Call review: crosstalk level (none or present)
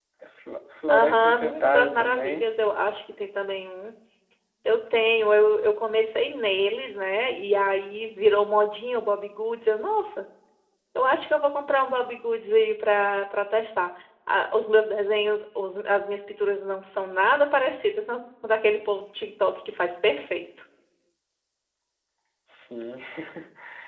present